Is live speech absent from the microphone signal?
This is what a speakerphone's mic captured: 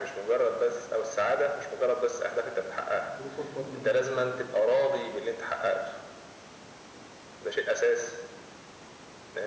No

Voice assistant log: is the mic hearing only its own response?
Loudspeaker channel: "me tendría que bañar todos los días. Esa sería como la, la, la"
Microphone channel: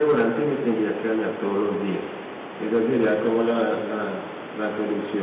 Yes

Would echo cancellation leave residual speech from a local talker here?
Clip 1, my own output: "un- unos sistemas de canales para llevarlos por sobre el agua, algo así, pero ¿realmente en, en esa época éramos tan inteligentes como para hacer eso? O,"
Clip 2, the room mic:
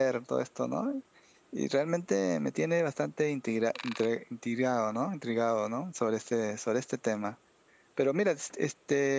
Yes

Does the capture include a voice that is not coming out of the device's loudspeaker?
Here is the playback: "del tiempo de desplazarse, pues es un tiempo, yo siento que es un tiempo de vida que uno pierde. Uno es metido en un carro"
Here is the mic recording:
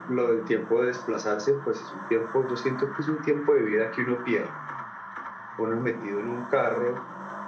No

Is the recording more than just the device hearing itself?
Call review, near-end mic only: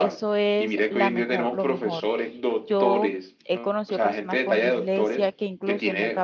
Yes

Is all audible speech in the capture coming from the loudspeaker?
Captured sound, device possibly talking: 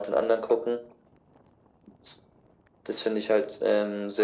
Yes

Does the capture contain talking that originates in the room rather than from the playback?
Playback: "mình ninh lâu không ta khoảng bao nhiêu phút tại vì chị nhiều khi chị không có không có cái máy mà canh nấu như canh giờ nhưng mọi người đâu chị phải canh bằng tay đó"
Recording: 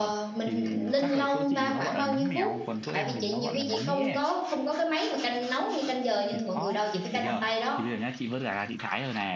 Yes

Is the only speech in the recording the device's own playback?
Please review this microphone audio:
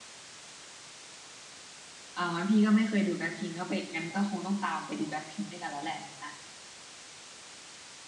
No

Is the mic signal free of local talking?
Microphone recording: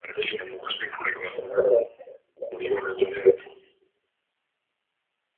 Yes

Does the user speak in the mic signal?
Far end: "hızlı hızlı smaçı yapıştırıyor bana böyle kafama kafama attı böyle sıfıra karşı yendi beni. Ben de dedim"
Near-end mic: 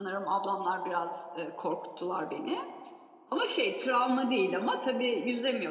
Yes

